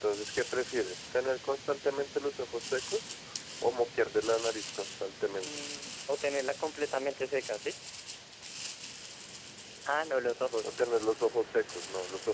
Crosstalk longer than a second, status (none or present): none